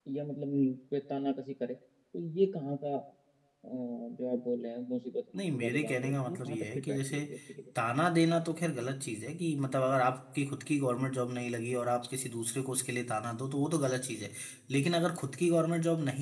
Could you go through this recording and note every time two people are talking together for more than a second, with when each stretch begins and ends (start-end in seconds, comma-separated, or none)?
5.6-7.2